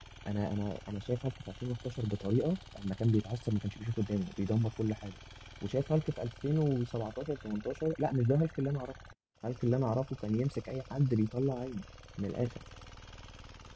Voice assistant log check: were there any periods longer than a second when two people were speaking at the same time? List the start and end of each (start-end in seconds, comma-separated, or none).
none